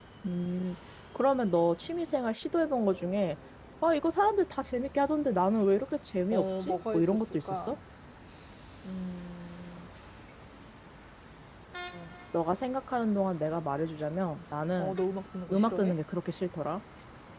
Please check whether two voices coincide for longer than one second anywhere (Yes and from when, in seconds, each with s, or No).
Yes, from 6.3 s